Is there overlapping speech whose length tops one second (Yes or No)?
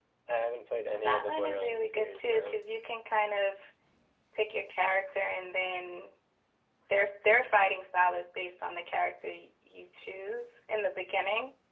Yes